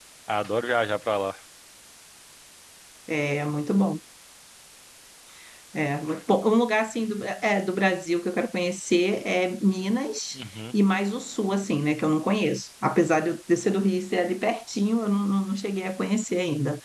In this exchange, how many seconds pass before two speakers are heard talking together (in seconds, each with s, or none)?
none